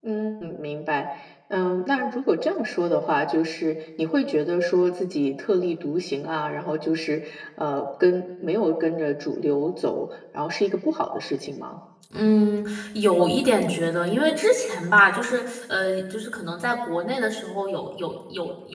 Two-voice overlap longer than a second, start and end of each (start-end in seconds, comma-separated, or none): none